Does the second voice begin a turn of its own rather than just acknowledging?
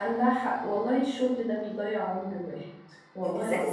Yes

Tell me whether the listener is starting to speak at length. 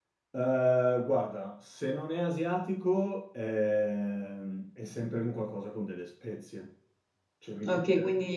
Yes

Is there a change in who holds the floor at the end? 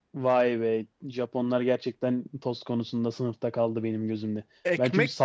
Yes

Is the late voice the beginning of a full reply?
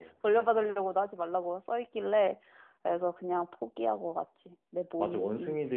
Yes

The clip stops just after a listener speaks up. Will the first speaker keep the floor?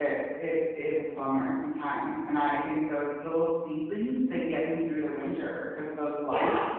Yes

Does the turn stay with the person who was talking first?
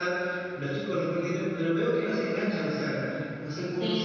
No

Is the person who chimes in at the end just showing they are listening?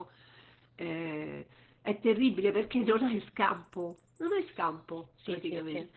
No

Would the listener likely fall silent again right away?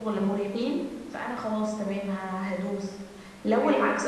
Yes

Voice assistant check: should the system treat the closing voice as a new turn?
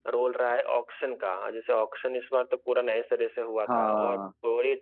No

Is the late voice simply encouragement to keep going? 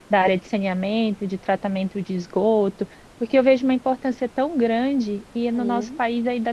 Yes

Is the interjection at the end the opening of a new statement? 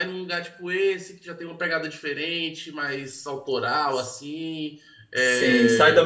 Yes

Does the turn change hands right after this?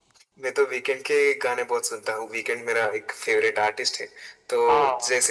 No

